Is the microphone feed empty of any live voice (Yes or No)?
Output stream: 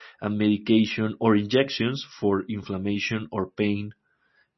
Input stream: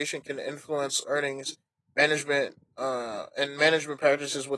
No